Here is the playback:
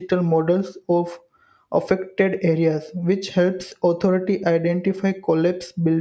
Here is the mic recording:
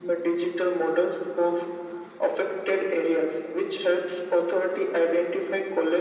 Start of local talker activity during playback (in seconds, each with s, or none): none